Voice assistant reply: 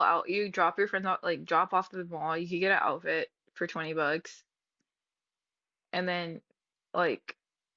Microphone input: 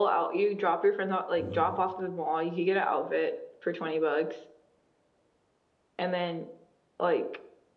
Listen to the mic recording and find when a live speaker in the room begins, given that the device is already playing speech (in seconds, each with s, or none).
1.4 s